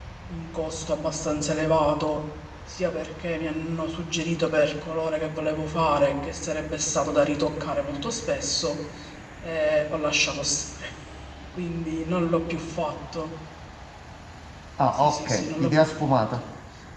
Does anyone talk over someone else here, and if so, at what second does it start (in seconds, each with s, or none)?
15.0 s